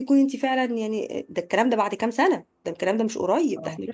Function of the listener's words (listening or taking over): listening